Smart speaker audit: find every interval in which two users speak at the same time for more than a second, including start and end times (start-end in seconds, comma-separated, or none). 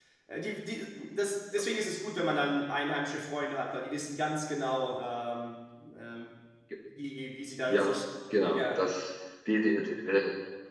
none